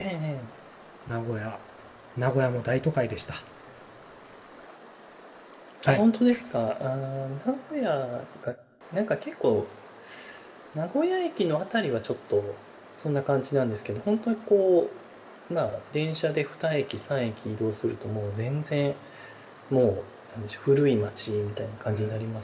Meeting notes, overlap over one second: none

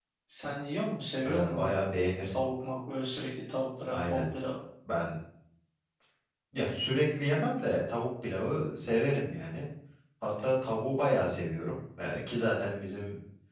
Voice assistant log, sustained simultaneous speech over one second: none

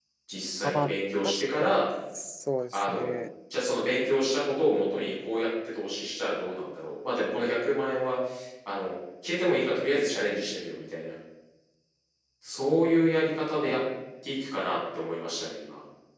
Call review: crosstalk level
present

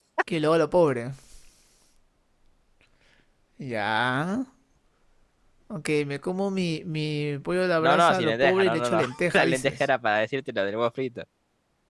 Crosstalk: present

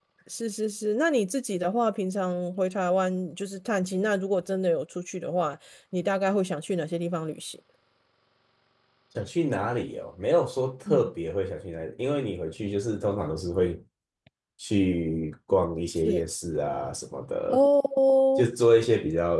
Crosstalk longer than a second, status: none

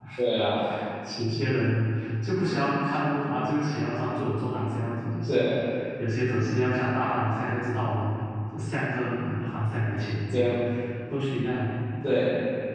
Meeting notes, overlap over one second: none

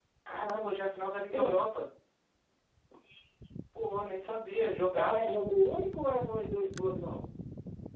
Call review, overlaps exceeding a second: none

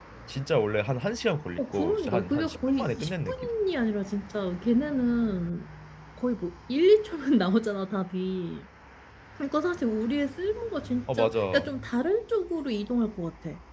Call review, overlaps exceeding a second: present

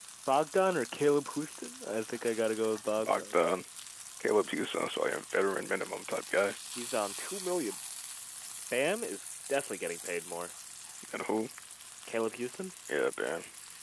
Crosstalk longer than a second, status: none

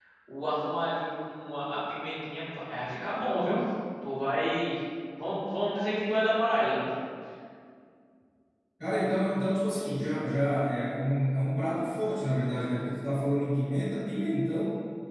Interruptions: none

